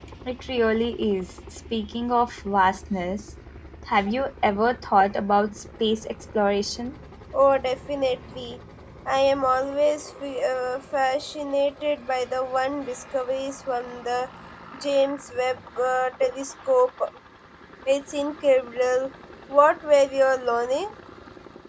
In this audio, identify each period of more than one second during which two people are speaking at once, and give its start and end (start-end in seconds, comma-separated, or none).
none